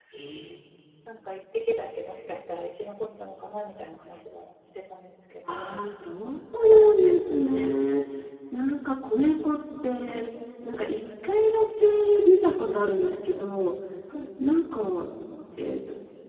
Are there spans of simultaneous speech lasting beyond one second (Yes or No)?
No